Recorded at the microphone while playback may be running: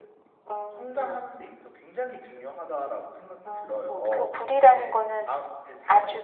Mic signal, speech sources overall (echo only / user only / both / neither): both